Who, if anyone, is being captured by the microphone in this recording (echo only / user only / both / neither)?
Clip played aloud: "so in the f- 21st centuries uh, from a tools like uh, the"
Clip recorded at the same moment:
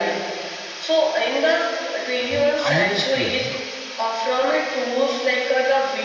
both